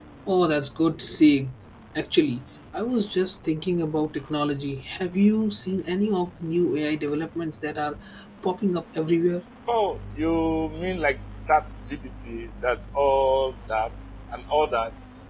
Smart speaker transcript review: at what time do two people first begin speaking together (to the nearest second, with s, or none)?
none